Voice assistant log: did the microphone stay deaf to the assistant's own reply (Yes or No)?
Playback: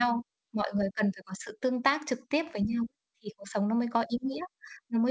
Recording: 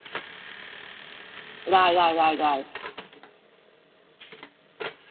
Yes